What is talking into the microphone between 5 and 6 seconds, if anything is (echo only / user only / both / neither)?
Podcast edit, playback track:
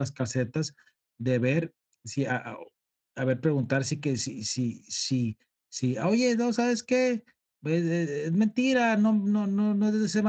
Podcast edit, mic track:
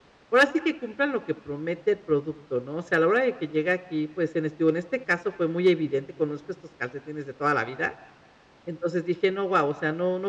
user only